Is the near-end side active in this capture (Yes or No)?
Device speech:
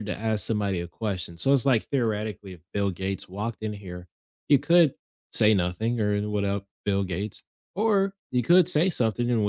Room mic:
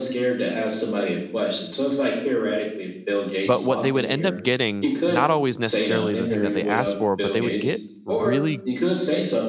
Yes